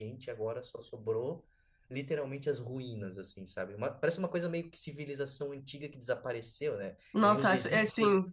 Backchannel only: No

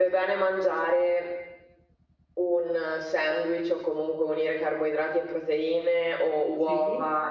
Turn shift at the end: No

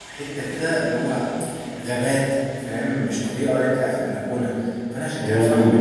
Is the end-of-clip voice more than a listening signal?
No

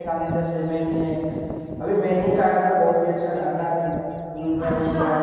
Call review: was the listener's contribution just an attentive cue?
No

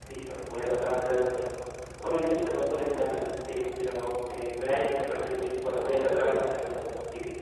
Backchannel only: Yes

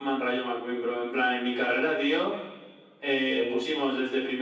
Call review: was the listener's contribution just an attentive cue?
Yes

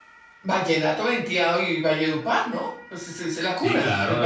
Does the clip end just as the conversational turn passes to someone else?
Yes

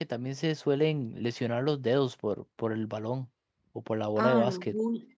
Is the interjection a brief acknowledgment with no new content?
No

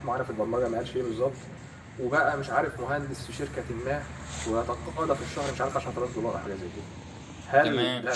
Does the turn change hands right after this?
No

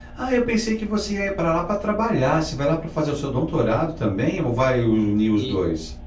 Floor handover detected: Yes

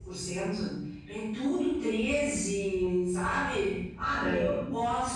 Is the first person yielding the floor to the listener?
No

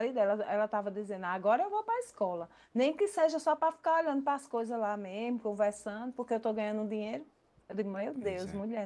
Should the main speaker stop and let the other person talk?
No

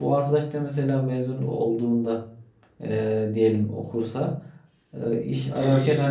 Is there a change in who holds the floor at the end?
No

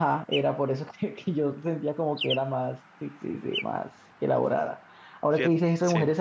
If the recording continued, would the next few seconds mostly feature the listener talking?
No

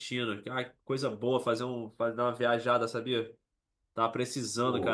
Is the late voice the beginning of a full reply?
No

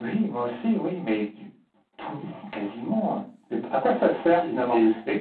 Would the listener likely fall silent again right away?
Yes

